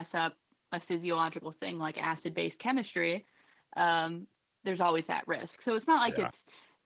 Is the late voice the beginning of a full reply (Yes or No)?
No